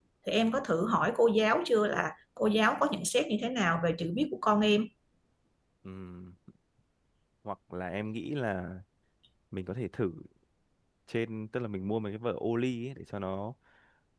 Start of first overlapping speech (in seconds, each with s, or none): none